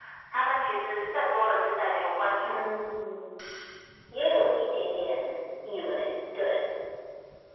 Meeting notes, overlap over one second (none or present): none